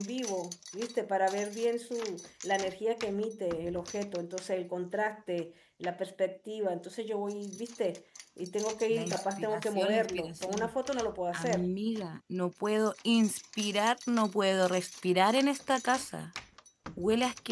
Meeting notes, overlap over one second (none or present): present